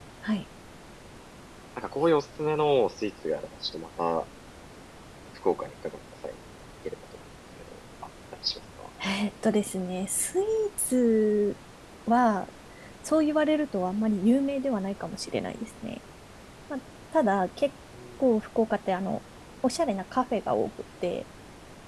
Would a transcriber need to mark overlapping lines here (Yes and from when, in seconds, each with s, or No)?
No